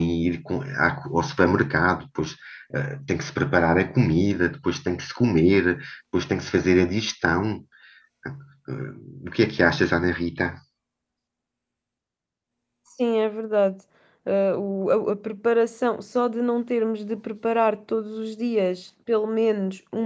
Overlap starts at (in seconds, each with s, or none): none